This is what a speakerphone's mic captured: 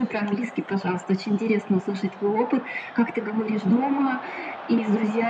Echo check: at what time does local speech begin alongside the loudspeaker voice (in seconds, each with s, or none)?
none